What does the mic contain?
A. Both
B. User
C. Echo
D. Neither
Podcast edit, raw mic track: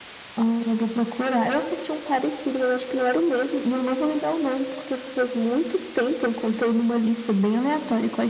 C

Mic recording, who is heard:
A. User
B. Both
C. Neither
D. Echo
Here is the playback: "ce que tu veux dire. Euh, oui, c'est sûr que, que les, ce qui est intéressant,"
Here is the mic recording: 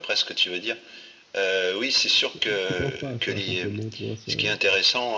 B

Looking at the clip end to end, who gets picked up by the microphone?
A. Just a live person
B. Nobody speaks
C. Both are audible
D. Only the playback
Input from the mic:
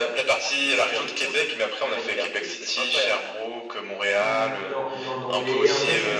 C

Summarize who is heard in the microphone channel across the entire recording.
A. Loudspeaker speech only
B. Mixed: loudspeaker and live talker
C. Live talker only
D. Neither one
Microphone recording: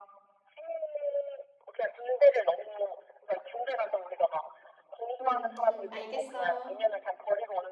B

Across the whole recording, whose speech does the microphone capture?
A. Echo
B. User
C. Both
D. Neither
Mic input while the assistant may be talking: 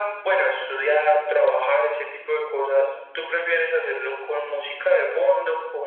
A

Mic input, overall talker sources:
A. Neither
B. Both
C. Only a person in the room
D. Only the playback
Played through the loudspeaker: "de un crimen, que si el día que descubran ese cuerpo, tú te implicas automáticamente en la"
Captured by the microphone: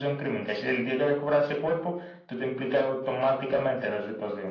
D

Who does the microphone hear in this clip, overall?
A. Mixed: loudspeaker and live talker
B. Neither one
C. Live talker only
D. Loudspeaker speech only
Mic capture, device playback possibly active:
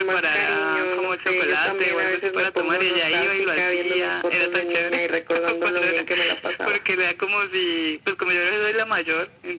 D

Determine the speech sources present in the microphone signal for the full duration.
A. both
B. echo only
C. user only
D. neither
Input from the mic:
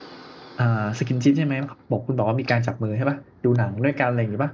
C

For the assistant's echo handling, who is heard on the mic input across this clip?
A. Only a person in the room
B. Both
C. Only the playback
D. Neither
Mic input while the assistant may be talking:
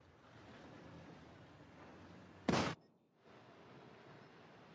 D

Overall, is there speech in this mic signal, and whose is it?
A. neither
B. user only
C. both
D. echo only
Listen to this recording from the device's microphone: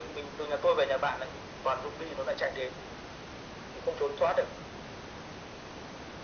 D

